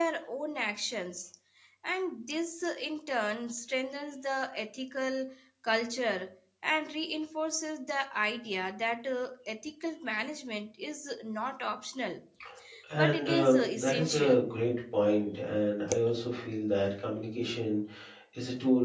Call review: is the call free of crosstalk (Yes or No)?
No